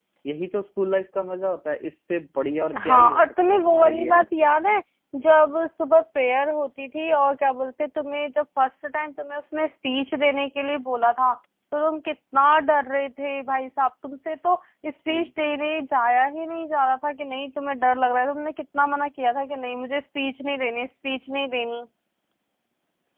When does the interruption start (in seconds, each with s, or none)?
2.7 s